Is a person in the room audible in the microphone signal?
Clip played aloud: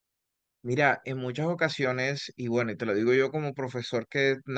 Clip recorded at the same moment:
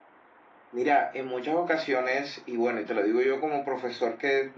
No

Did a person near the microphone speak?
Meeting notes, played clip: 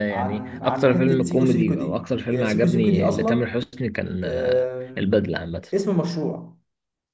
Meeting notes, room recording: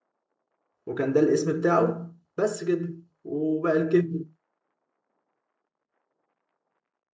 Yes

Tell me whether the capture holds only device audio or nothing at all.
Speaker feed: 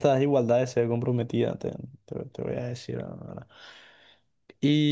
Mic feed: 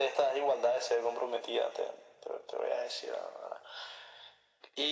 Yes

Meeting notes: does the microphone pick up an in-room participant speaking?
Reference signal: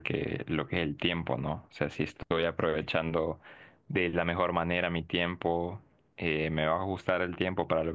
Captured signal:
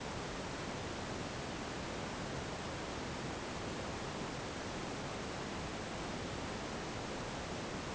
No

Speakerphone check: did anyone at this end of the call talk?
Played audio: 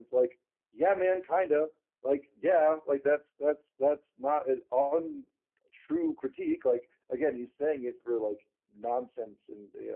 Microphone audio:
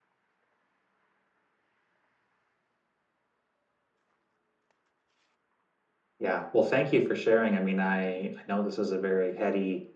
Yes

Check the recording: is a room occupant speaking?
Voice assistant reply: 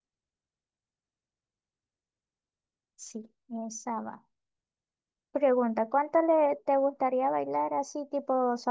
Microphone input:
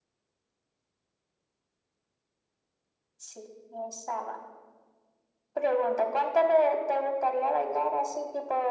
No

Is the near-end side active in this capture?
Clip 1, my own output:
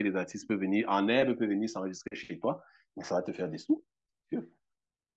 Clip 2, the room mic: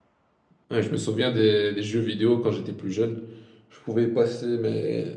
Yes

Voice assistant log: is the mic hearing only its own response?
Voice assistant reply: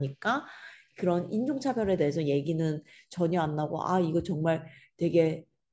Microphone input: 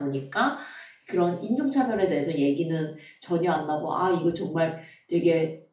Yes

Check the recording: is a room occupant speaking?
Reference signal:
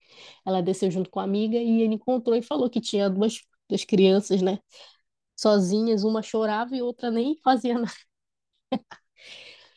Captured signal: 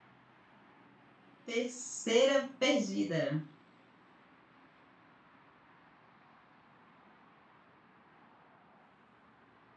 Yes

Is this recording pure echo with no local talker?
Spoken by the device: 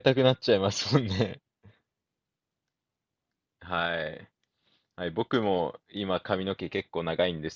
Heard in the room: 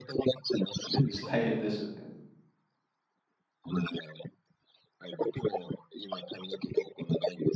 No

